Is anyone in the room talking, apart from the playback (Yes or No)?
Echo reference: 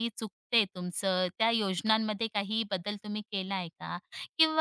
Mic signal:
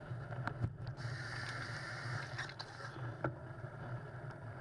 No